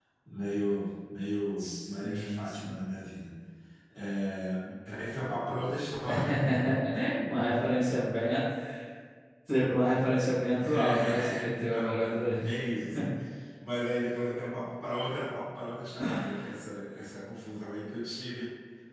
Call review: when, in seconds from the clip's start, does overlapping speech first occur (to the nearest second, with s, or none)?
2 s